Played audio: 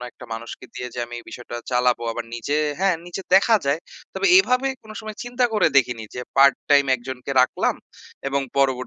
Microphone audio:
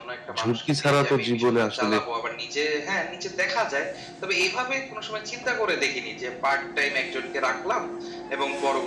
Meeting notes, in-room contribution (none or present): present